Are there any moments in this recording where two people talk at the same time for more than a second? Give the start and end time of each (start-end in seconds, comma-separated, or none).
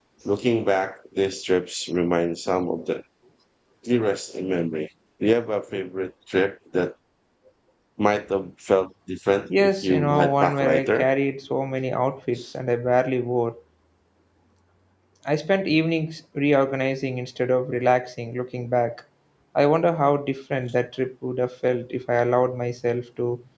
9.5-11.1